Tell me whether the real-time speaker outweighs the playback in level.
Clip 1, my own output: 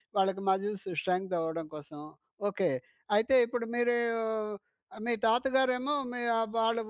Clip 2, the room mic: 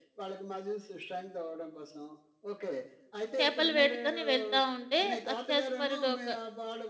Yes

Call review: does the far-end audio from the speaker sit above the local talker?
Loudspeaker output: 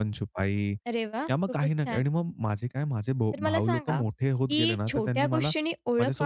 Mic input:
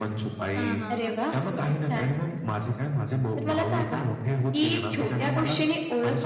Yes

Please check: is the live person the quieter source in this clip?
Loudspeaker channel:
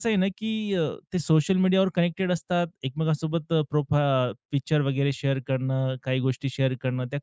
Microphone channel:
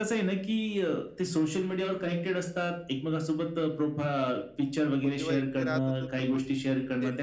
Yes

